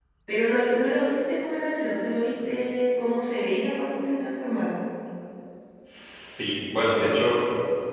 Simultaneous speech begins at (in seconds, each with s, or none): none